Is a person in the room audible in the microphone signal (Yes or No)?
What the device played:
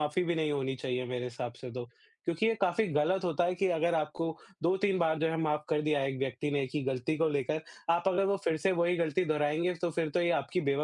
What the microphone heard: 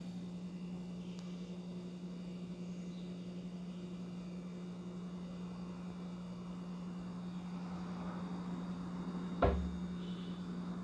No